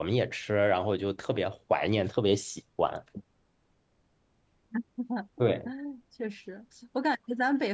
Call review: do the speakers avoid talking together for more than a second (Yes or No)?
Yes